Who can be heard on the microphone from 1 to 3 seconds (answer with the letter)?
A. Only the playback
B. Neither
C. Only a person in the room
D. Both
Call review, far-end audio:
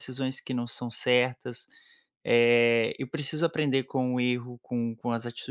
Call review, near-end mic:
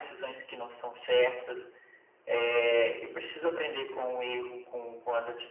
A